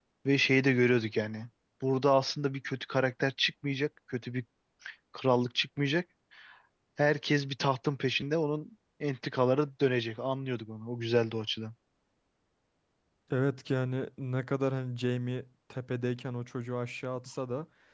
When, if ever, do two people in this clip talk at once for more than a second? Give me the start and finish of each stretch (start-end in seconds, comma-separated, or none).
none